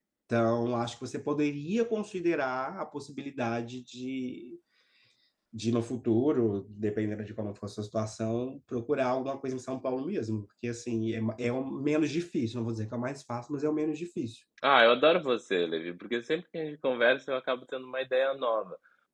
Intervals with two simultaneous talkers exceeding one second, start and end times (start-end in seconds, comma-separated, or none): none